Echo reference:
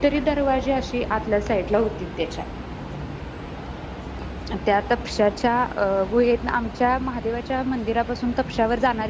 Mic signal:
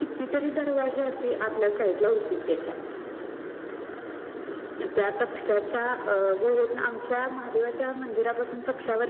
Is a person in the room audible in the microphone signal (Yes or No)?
No